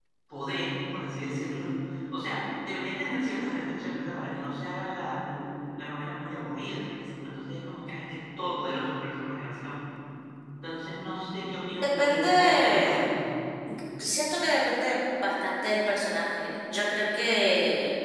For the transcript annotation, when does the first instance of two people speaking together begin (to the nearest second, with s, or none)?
12 s